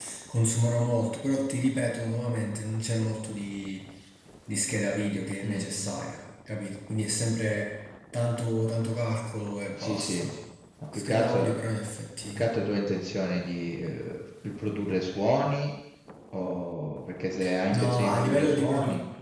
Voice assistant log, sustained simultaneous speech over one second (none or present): present